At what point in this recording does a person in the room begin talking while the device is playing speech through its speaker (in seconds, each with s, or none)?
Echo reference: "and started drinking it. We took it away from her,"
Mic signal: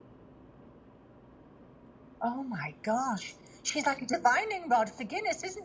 2.2 s